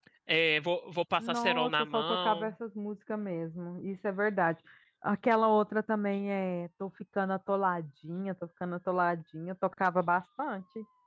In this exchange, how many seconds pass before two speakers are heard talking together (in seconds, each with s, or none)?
1.2 s